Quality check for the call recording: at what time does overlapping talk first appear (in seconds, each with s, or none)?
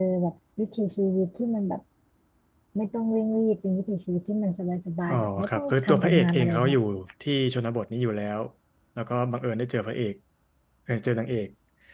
5.1 s